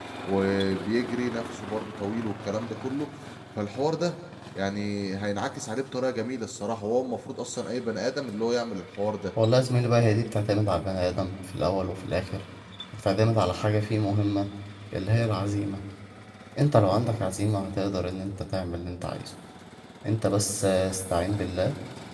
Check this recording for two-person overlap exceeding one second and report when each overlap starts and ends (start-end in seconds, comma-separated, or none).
none